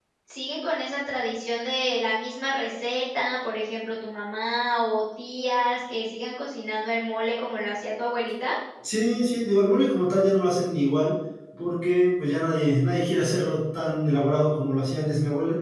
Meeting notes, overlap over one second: none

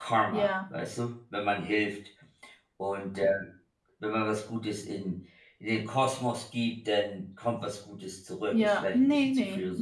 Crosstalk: present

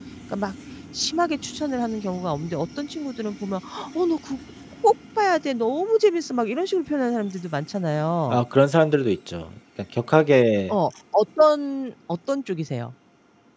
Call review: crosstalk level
none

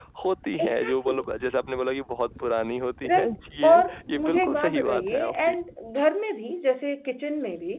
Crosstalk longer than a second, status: present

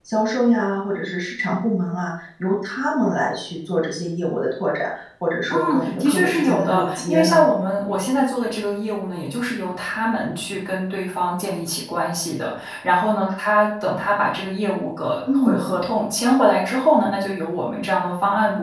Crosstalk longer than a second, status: present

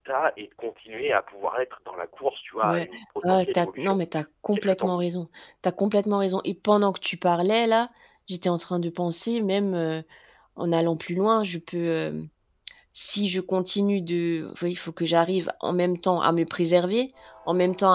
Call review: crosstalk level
present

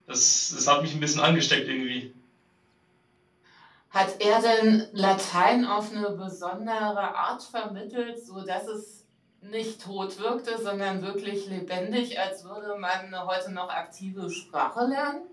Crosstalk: none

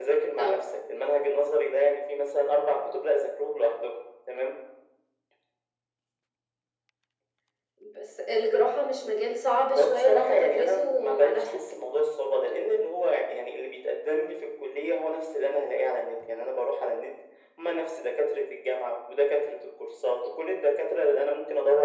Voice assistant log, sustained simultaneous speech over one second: present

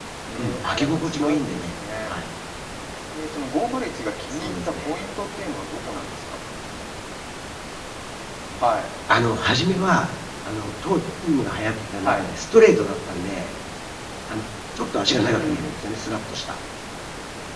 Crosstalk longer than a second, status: present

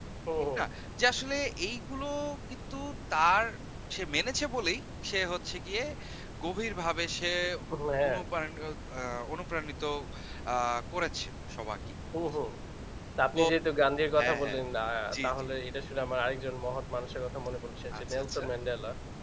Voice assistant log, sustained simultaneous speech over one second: none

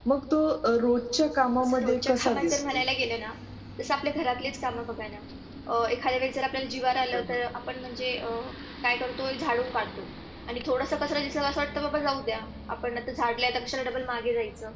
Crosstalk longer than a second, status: present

